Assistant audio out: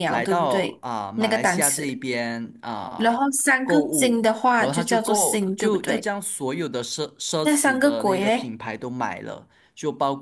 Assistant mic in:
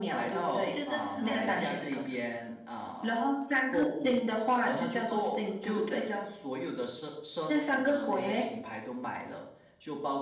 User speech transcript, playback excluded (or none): 就这四个里面选一个，